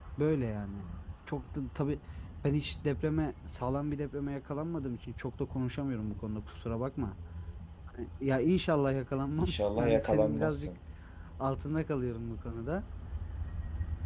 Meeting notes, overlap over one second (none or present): present